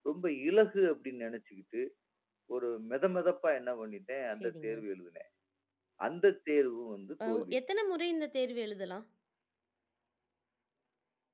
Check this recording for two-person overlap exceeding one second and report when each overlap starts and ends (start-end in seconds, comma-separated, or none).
none